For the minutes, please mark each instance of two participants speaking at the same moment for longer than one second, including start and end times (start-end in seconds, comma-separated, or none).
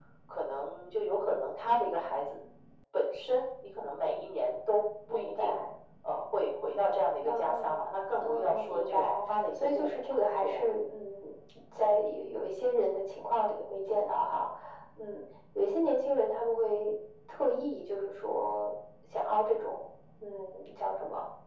8.2-10.7